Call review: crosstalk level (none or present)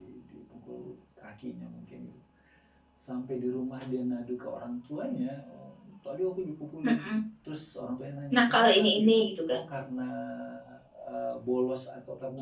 present